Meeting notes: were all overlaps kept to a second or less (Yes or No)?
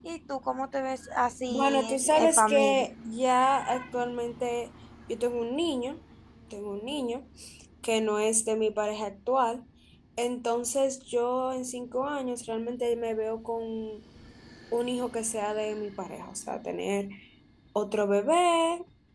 No